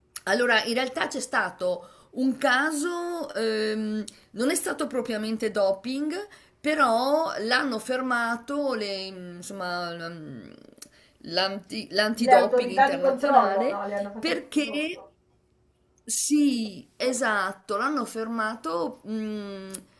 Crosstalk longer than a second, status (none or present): present